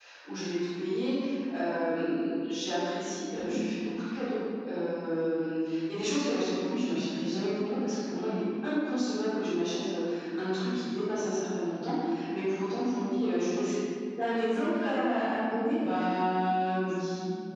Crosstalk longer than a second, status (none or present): none